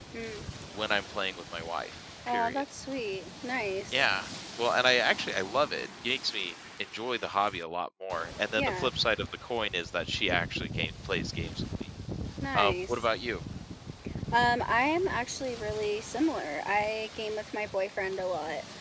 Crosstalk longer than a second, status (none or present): none